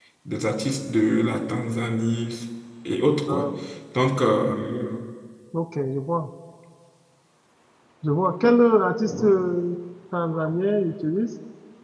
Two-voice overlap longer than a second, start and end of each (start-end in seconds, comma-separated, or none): none